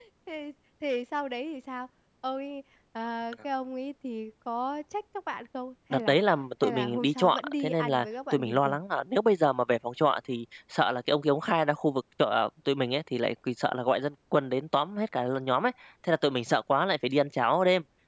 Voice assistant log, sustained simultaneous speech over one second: present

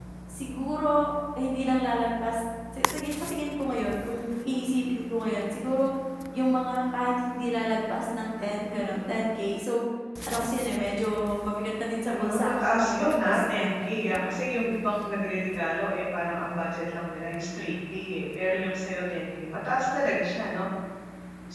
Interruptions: present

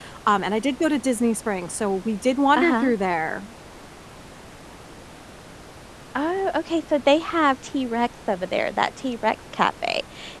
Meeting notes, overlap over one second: none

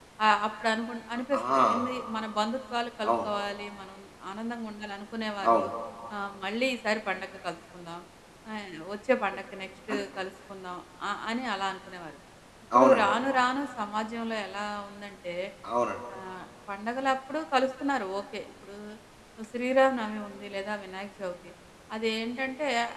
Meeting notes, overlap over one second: none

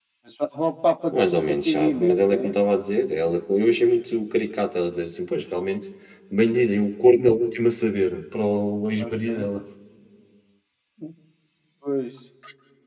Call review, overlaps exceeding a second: present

